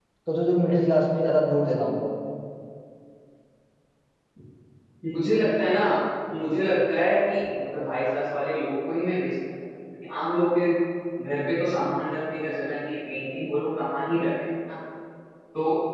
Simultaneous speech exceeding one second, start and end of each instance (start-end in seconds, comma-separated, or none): none